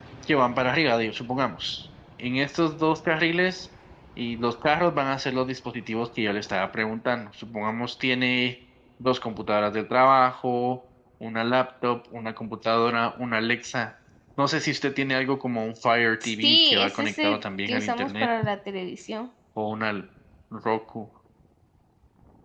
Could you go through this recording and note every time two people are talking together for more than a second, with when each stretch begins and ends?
16.2-18.3

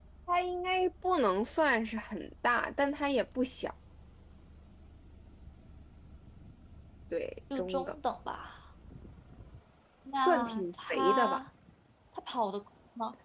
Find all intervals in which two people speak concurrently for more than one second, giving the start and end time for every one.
10.2-11.4

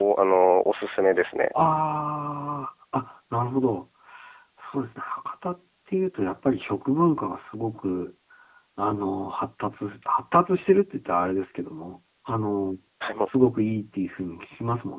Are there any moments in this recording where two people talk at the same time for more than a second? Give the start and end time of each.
none

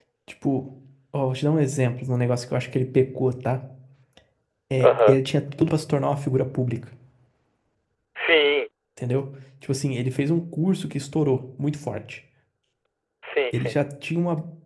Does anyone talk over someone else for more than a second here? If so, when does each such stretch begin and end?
none

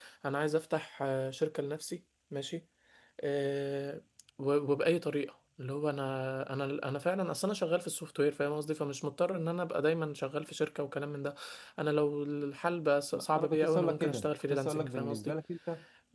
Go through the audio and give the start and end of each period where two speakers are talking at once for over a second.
13.1-15.3

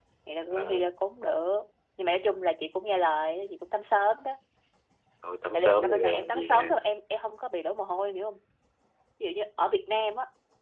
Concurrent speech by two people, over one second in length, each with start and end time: 5.5-6.8

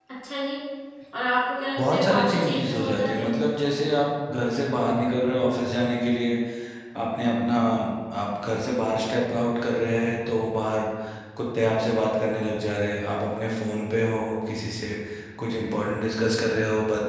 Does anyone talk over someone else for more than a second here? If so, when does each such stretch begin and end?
1.8-3.2

